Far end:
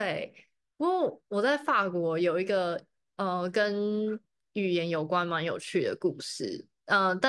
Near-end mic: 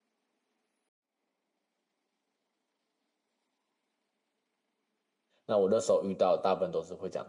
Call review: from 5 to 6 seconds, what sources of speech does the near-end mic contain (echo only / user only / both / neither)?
user only